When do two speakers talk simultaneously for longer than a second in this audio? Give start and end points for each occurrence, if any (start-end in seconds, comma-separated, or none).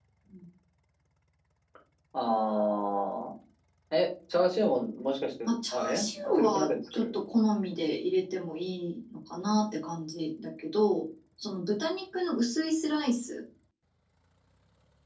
5.5-7.2